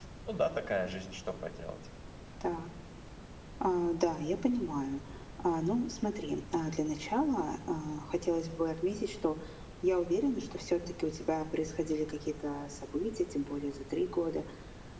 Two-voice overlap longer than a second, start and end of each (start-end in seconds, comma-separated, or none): none